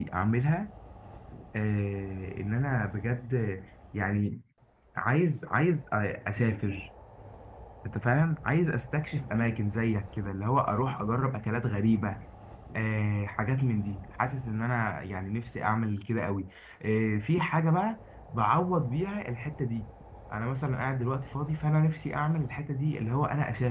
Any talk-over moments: No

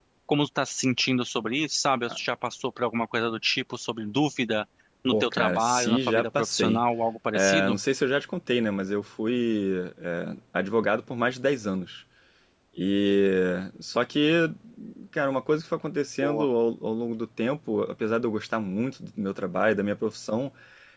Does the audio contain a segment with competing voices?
Yes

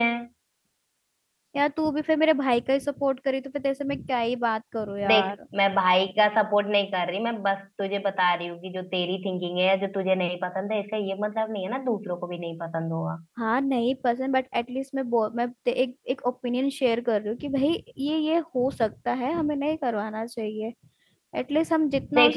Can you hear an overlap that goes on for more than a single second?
No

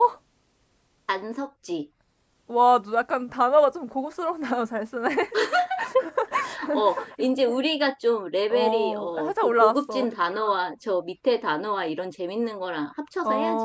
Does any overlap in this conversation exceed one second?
Yes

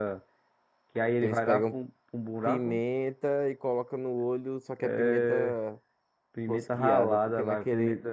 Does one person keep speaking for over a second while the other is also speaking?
Yes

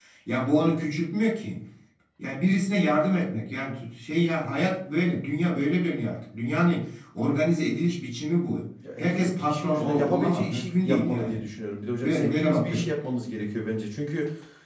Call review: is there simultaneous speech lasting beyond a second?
Yes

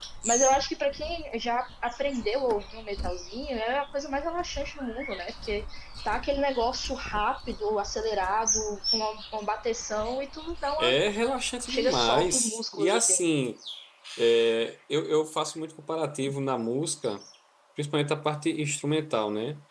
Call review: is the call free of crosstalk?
No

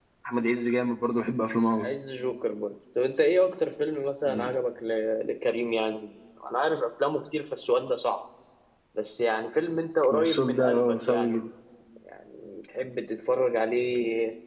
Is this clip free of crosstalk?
No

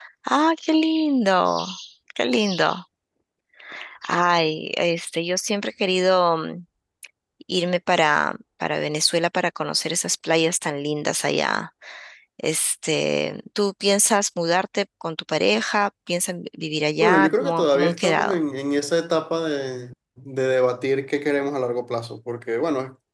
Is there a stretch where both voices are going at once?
Yes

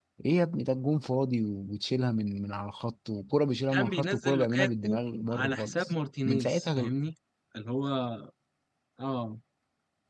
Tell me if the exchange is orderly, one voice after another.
No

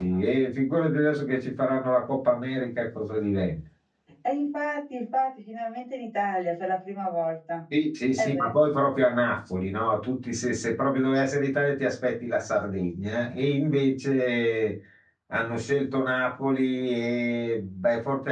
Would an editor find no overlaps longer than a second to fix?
Yes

